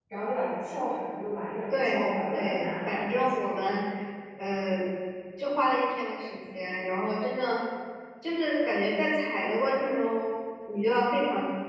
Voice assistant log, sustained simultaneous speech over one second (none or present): present